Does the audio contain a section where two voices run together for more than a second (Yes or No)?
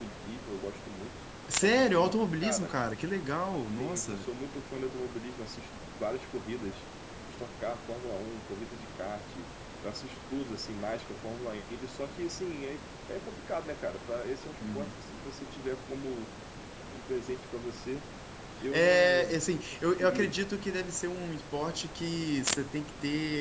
Yes